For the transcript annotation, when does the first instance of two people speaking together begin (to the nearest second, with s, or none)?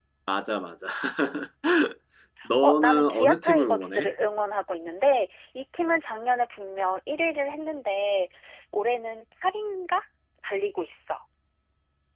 3 s